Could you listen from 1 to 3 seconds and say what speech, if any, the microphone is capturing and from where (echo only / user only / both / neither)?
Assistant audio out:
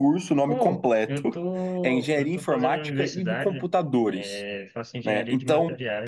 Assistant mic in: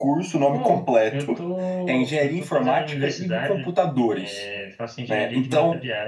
echo only